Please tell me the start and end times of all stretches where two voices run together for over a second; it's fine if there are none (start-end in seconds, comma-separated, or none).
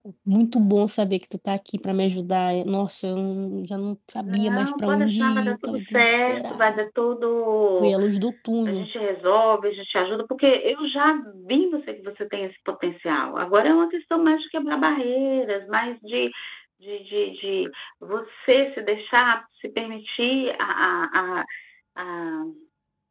4.2-6.9